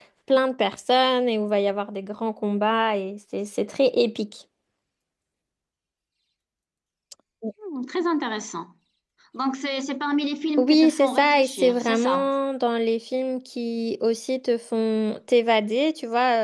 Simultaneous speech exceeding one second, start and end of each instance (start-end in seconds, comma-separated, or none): 10.6-12.3